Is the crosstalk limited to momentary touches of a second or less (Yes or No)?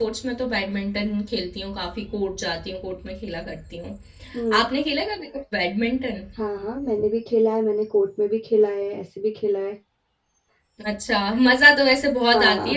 Yes